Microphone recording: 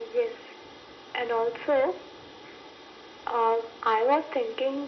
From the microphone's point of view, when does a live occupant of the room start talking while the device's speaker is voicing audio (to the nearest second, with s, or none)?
none